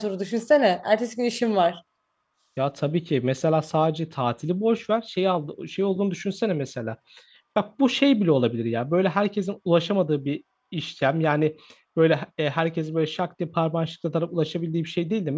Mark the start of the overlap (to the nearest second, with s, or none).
none